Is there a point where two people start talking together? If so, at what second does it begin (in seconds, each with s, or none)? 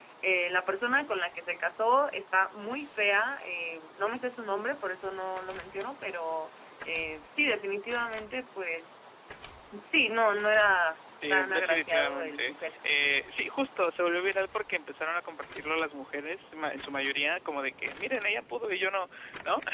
11.2 s